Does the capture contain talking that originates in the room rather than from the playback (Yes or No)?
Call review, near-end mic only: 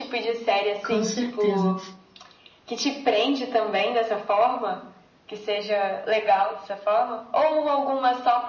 Yes